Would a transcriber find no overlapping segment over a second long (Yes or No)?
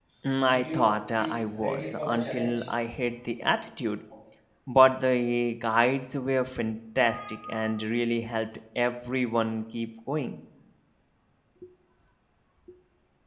No